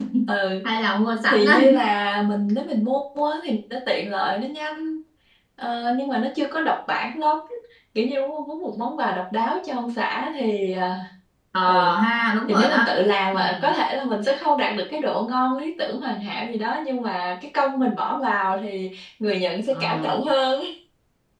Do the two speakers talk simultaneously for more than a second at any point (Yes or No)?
No